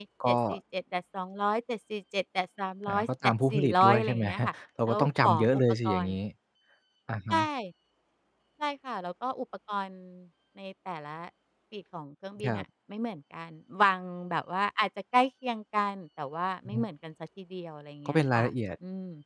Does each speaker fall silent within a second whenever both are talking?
No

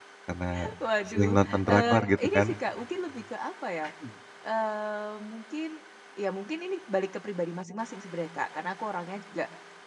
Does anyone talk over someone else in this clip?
Yes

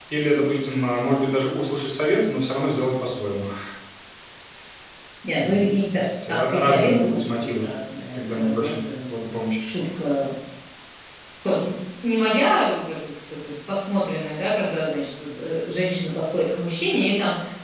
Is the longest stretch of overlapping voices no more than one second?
No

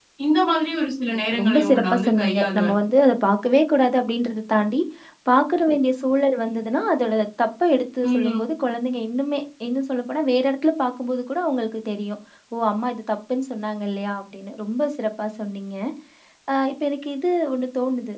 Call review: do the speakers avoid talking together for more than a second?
No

